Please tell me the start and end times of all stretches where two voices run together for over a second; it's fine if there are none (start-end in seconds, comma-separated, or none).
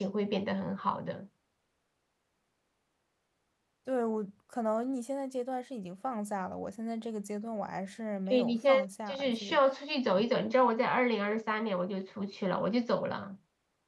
8.3-9.6